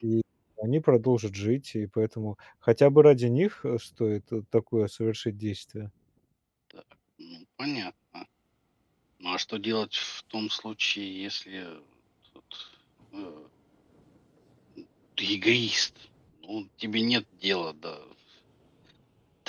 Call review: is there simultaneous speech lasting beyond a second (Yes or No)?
No